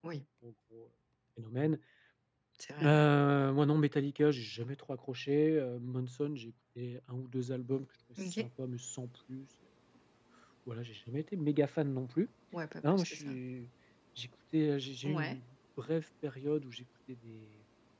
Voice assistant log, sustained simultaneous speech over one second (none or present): none